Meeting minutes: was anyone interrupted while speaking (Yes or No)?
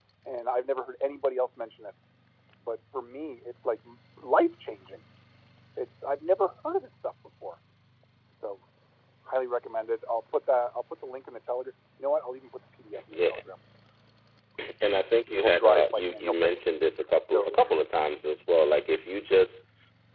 Yes